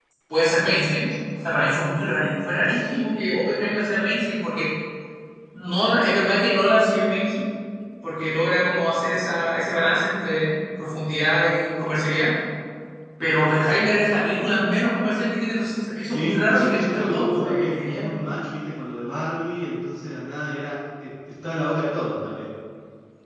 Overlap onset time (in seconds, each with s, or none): 16.1 s